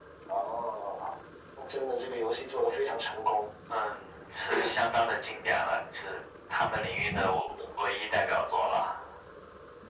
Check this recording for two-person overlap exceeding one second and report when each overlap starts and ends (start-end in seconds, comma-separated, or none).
none